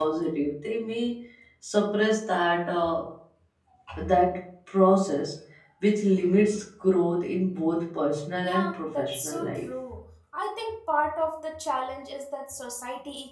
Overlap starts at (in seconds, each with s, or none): 8.4 s